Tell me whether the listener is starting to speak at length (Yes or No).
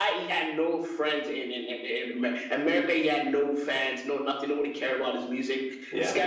No